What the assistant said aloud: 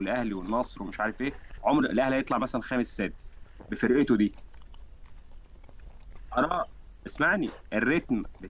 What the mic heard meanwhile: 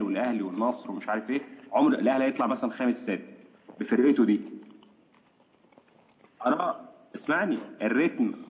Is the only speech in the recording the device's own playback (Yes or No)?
Yes